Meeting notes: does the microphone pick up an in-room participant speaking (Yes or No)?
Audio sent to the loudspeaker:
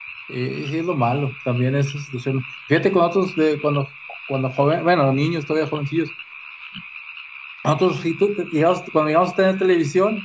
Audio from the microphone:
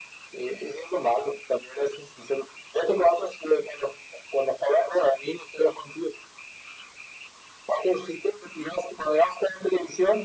No